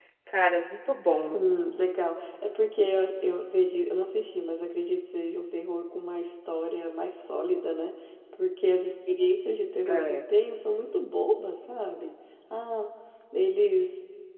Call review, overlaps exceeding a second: none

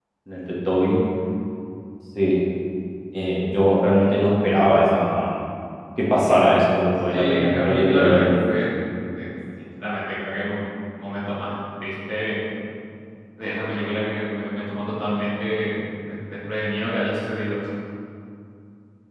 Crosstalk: present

